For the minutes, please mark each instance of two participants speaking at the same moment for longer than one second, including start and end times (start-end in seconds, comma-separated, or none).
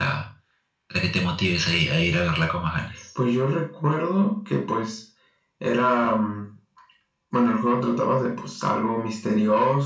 none